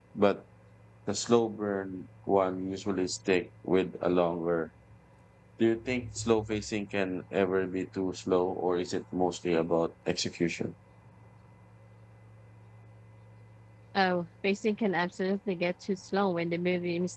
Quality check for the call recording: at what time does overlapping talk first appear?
none

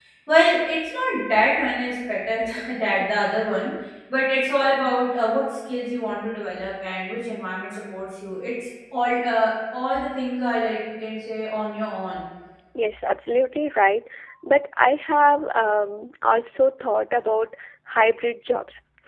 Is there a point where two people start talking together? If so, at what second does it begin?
none

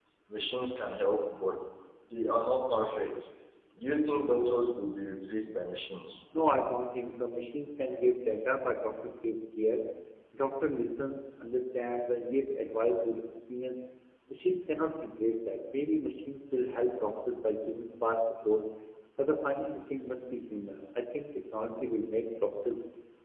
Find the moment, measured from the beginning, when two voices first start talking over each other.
none

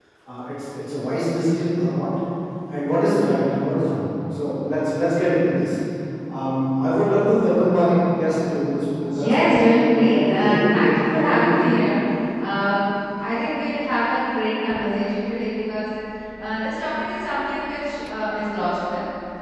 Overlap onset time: 9.1 s

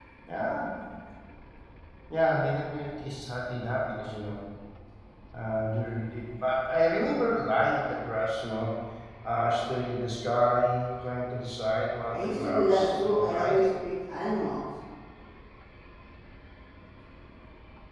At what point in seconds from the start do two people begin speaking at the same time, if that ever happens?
12.1 s

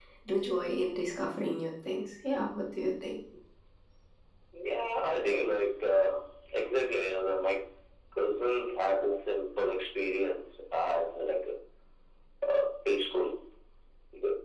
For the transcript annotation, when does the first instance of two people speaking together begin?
none

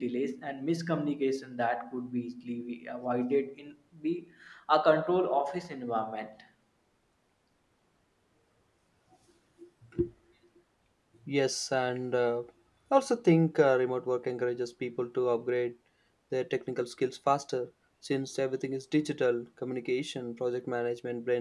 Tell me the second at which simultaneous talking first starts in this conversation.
none

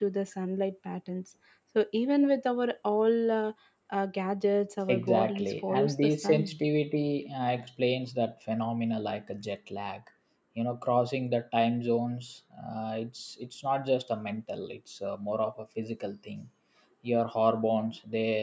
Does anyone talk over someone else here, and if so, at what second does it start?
4.9 s

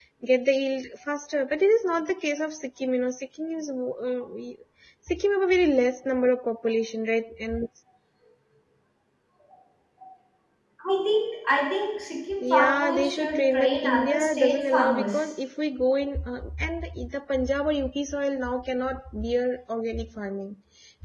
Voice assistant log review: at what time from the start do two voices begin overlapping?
12.4 s

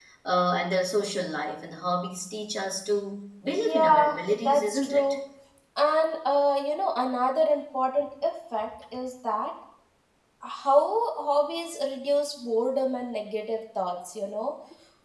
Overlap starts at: 3.5 s

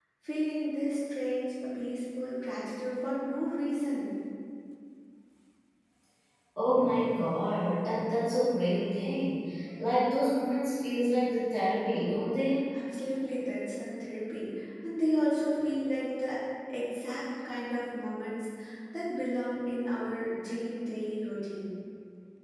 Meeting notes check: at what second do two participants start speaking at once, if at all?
none

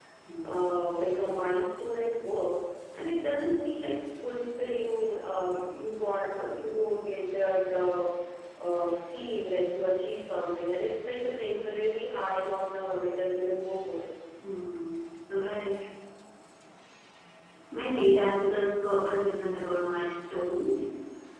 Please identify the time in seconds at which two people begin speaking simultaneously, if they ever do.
none

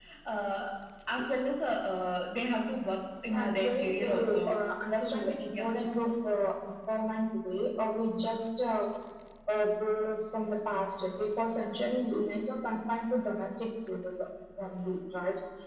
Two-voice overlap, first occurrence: 3.3 s

